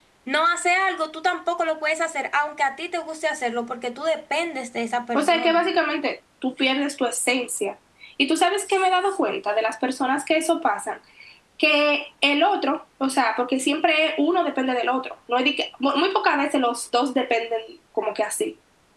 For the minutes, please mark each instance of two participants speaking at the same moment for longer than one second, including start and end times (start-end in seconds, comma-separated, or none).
none